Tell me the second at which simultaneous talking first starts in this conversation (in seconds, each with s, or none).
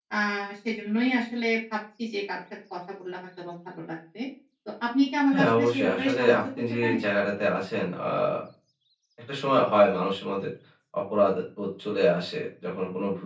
5.3 s